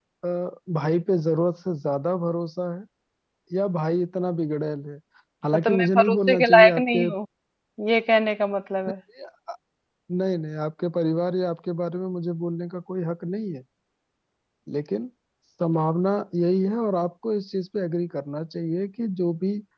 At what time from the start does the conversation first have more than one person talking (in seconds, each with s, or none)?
5.5 s